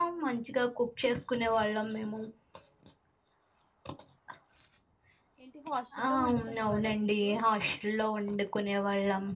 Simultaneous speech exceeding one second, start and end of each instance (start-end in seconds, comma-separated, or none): 6.0-7.3